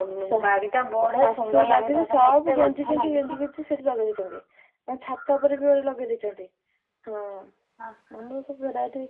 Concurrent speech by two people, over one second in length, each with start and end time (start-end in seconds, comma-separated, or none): 1.2-3.4